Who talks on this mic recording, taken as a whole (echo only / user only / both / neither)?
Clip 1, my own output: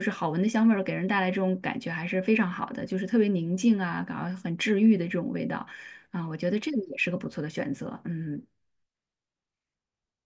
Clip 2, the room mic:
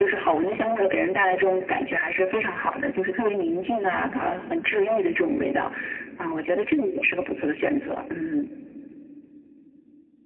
echo only